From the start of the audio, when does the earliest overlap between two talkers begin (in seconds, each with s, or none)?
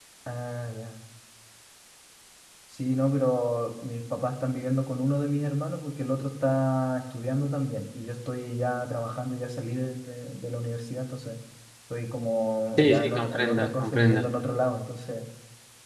12.8 s